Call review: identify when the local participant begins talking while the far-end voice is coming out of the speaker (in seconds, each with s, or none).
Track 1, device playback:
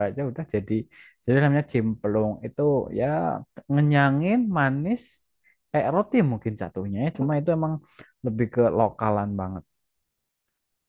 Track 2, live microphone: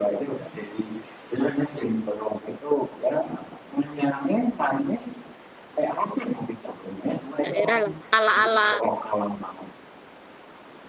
7.4 s